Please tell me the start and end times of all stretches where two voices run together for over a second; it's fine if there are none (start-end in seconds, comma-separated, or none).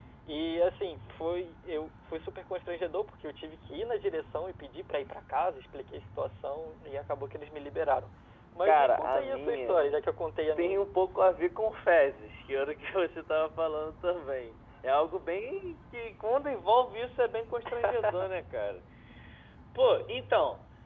8.6-9.9